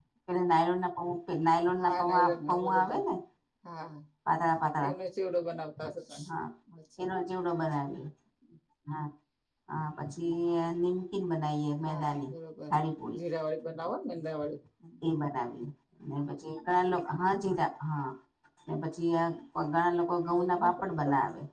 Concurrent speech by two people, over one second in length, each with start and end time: 1.8-3.0

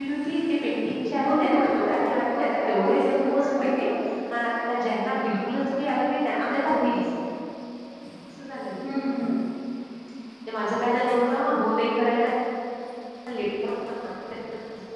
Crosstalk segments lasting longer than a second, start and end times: 1.3-3.9

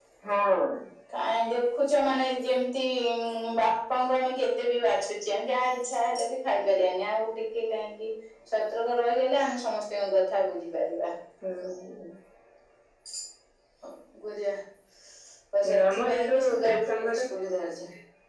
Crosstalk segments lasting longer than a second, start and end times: 15.8-17.2

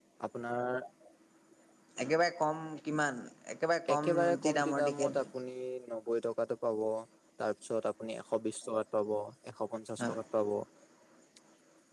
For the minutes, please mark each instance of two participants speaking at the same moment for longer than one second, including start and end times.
3.9-5.2

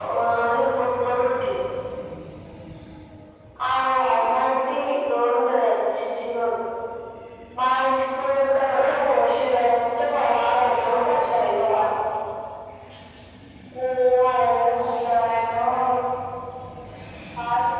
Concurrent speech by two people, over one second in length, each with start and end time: 10.0-11.8

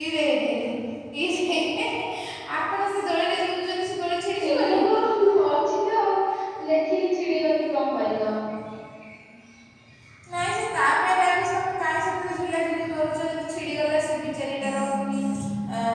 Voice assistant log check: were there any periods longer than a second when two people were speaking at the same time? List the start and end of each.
none

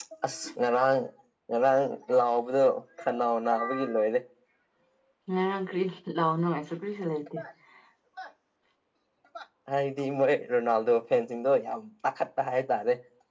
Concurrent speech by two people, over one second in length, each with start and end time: none

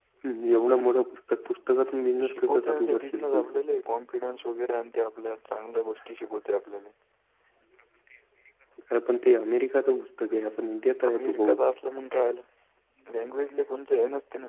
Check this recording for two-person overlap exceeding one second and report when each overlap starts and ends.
2.3-3.6

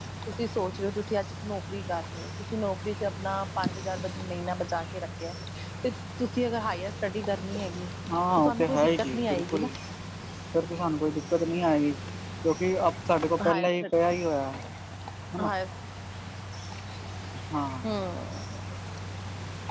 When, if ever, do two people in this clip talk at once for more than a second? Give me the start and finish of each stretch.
8.4-9.7

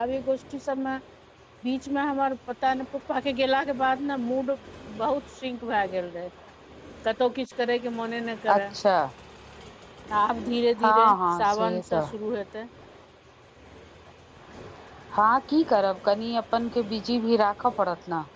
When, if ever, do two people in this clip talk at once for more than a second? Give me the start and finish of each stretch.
10.8-12.0

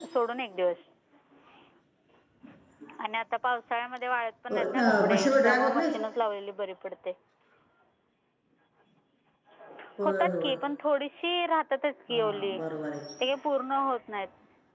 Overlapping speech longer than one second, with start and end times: 4.5-5.9

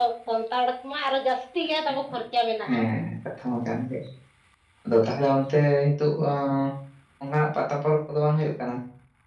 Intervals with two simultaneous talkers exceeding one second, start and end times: none

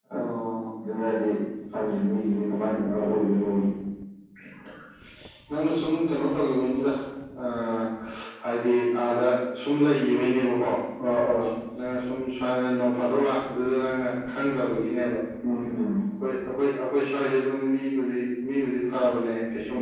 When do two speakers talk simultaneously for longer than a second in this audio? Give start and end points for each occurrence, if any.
none

